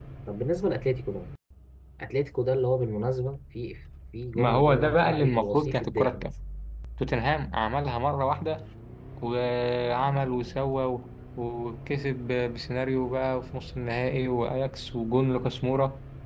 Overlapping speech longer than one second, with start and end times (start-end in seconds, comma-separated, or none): 4.3-6.3